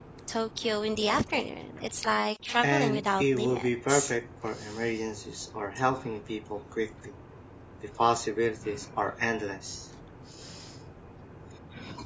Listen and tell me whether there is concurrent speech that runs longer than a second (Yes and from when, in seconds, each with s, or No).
Yes, from 2.6 s